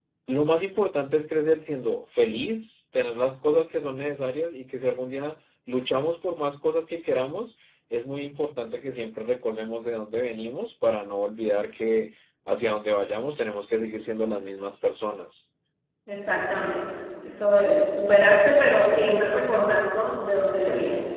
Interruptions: none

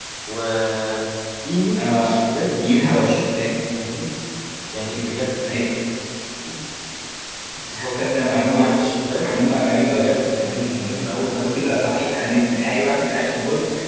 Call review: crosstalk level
present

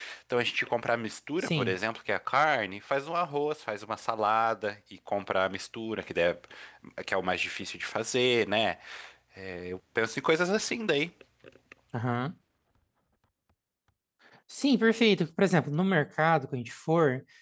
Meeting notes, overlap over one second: none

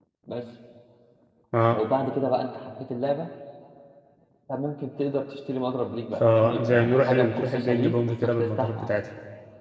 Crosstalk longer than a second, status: present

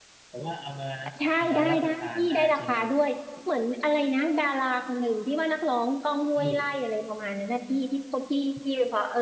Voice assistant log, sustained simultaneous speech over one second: present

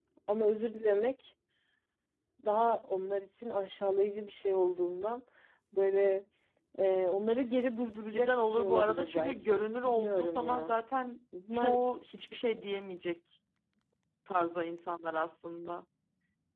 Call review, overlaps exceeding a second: present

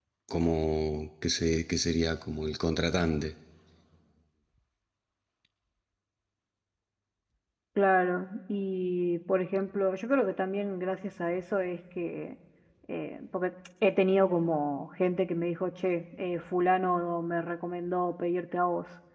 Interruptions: none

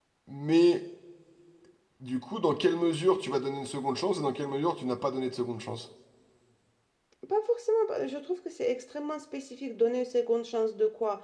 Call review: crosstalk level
none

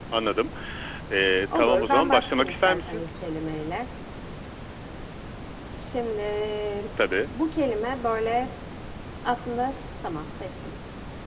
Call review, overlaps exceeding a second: present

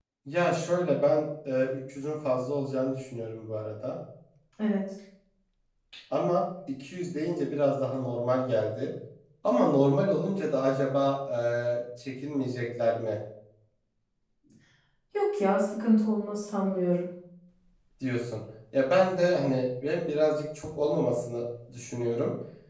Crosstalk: none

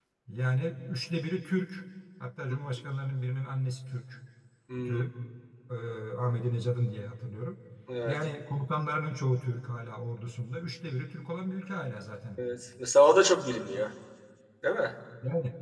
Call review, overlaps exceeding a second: none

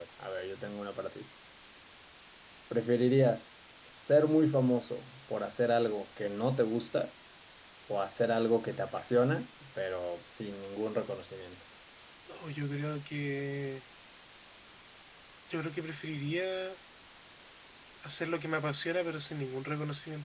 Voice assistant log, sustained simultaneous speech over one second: none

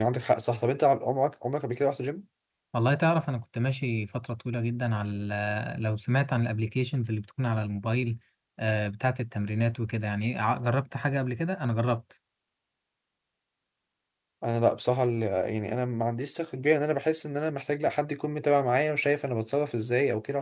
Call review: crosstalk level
none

